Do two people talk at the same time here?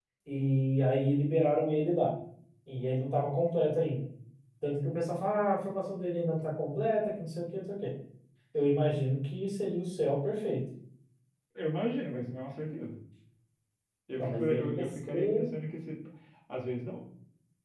Yes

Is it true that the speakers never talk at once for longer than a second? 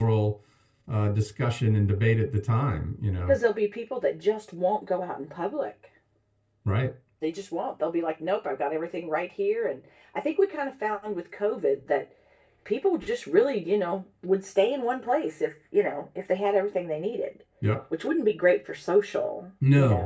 Yes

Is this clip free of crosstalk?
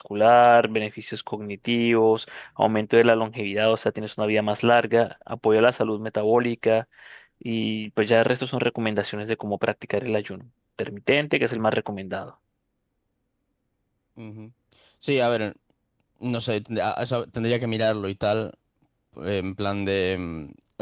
Yes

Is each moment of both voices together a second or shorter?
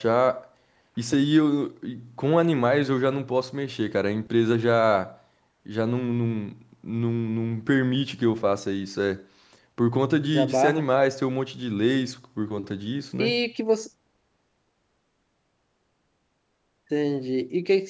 Yes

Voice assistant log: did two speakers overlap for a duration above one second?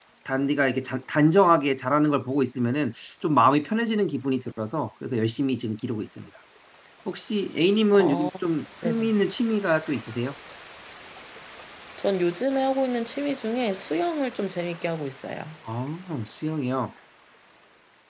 No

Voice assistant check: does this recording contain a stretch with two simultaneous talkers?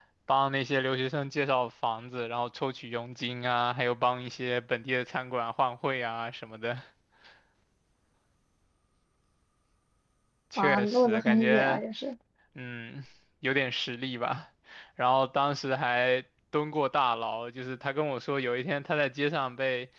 Yes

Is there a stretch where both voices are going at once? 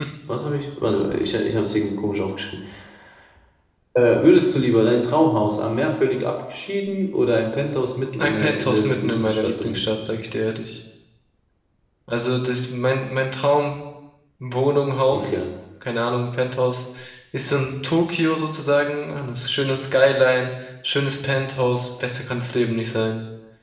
Yes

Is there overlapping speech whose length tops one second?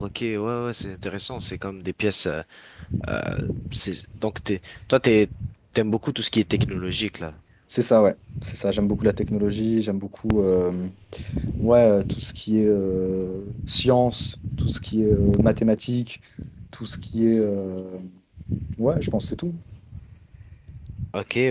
No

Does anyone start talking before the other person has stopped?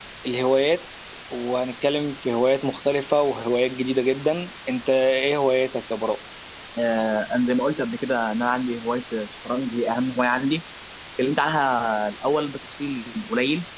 No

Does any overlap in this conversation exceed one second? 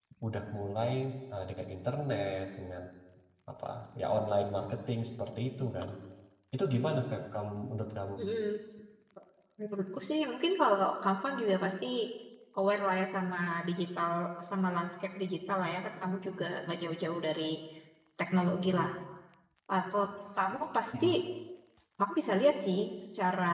No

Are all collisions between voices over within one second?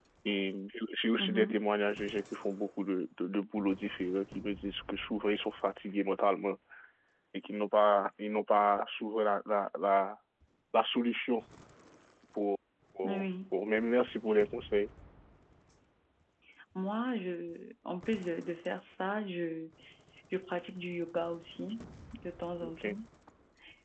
Yes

